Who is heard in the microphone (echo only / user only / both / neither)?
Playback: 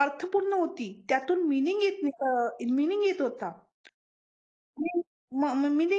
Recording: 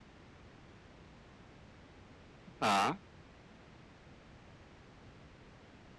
user only